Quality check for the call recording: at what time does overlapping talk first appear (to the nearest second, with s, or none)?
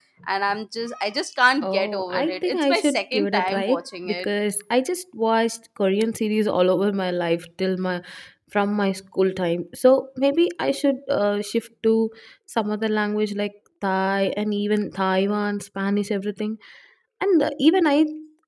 2 s